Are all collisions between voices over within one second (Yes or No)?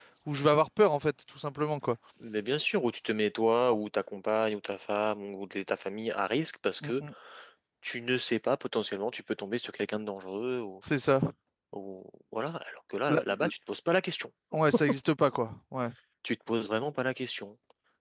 Yes